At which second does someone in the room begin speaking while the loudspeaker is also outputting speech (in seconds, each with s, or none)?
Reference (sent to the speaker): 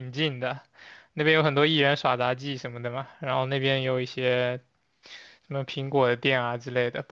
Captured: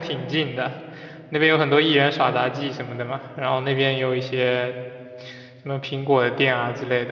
none